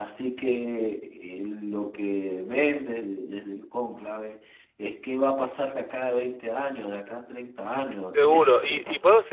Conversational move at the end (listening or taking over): taking over